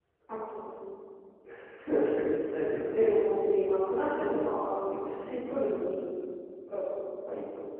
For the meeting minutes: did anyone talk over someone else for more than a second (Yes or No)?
No